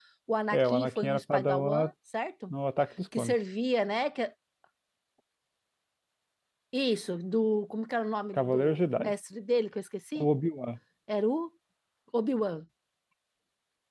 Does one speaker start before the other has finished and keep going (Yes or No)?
Yes